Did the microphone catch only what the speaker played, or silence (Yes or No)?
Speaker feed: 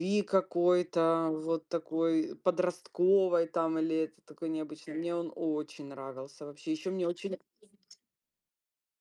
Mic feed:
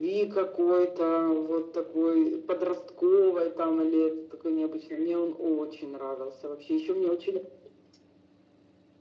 Yes